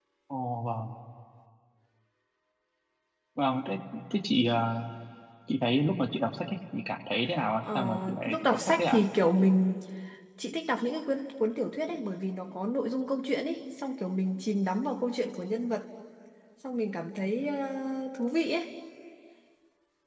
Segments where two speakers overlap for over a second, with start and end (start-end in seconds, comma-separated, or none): 7.6-9.0